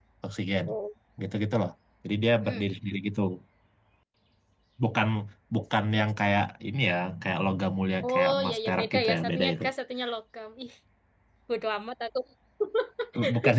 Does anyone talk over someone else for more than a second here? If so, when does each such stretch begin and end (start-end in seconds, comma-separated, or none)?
8.1-9.7